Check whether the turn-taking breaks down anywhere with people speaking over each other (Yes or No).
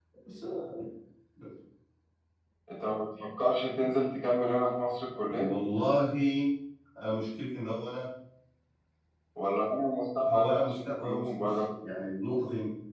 Yes